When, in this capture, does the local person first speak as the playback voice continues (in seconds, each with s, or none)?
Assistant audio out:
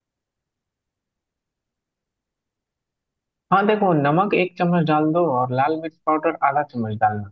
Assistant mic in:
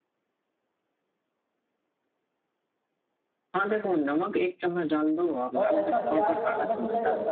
5.6 s